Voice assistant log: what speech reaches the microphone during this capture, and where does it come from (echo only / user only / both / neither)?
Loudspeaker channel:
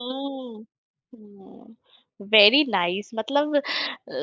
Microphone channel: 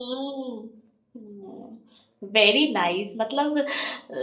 echo only